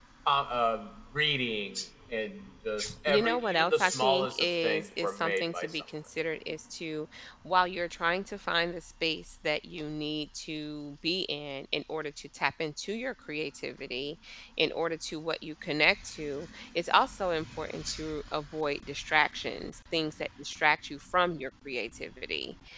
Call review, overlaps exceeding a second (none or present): present